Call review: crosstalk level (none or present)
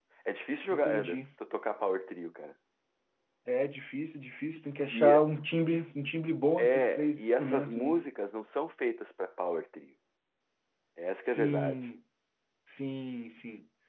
present